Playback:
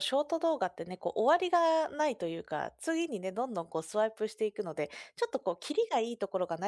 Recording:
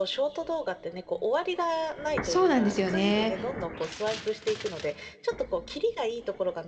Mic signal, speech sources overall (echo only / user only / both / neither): both